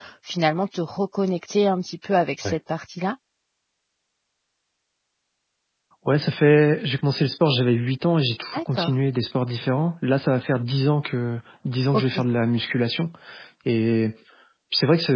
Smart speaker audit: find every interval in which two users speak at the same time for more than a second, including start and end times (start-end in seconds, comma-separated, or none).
none